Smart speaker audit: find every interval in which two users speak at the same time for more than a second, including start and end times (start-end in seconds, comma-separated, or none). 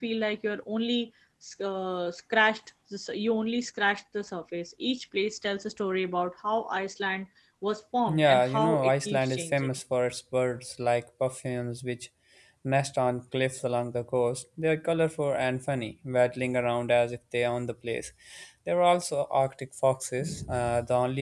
8.1-9.7